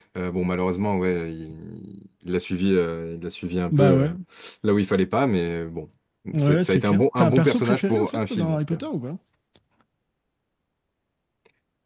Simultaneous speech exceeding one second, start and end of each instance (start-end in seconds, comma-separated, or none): 6.4-8.8